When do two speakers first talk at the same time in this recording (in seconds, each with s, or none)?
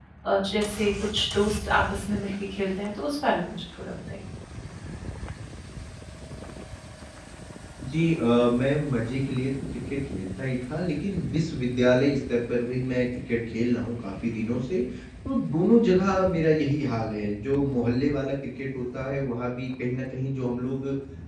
none